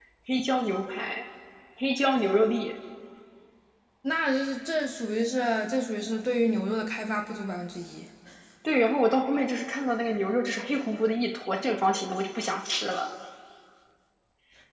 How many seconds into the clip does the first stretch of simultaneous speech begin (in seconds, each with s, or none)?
none